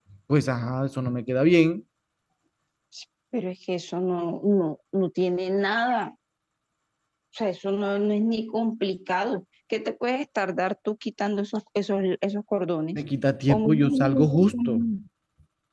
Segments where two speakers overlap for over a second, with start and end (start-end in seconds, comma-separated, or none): 13.5-14.7